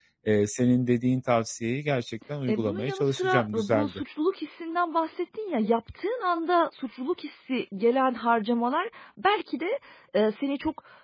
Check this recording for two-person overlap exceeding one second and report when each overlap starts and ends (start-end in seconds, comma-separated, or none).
2.5-4.0